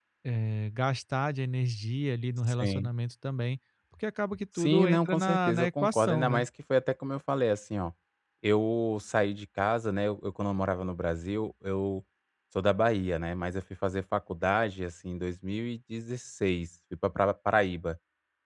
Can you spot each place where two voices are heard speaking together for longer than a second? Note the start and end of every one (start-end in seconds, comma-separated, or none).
4.6-6.4